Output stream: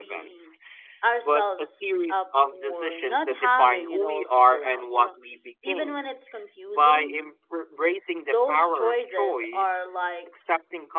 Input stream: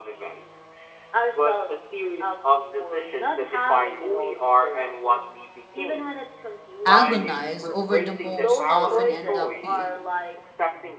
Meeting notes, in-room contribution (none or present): present